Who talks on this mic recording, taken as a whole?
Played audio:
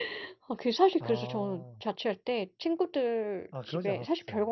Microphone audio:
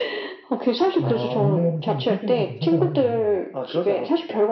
both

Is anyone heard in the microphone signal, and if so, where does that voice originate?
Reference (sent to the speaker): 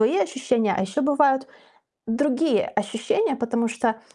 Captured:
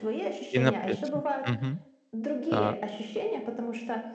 both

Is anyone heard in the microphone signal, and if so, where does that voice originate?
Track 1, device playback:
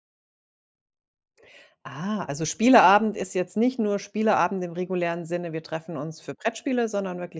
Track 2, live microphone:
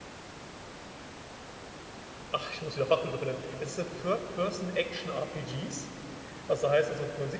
user only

